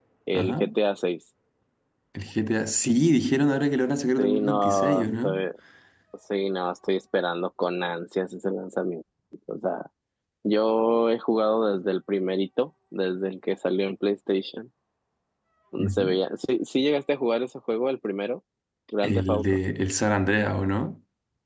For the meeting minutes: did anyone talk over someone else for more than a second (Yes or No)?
Yes